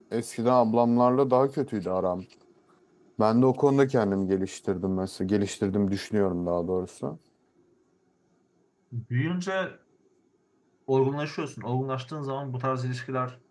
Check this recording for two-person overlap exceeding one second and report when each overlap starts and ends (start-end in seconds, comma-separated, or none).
none